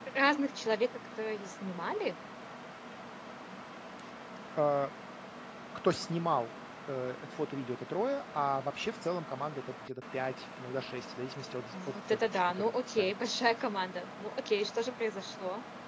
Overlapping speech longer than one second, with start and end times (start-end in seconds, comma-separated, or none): 11.7-13.2